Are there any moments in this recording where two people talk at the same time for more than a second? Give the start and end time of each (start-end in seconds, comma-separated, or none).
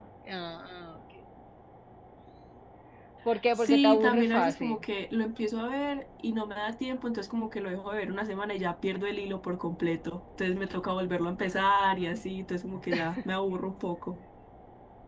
3.6-4.8